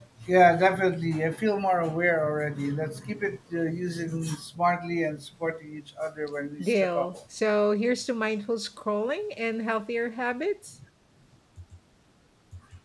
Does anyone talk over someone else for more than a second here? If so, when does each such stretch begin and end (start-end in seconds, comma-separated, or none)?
none